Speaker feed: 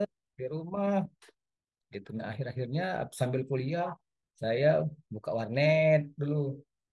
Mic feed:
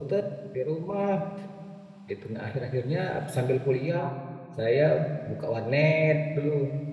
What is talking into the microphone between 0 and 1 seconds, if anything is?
echo only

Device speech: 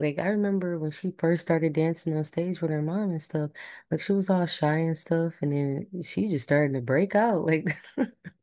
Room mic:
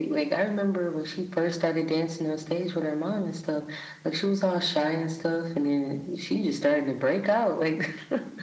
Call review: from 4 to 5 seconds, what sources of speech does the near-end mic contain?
echo only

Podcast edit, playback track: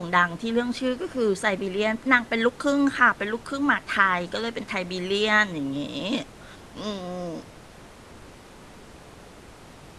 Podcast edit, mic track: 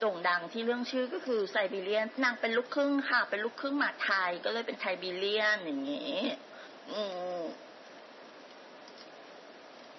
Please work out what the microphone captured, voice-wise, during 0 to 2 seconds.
echo only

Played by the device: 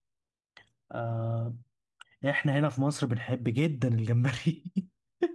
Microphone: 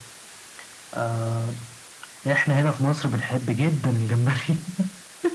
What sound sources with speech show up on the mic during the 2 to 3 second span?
echo only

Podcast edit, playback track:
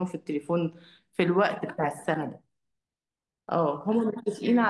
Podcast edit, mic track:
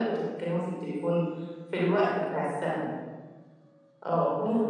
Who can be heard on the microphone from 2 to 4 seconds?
echo only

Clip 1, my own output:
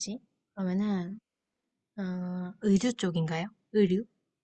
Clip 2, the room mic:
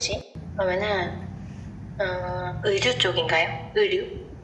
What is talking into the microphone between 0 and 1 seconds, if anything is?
echo only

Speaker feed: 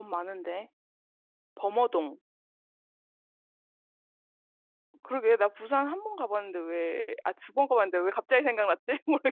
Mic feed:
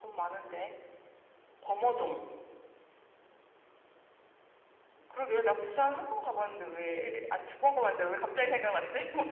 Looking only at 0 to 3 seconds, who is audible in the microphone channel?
echo only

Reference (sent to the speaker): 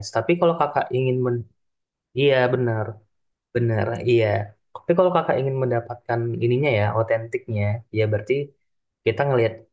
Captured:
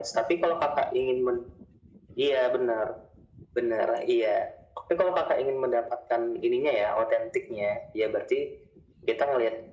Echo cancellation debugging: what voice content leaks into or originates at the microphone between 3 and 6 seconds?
echo only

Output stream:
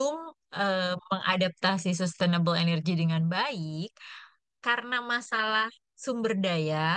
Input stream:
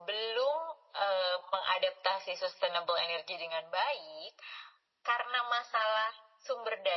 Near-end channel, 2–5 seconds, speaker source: echo only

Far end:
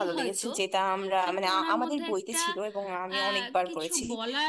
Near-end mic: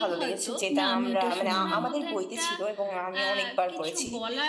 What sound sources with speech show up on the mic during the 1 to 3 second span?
both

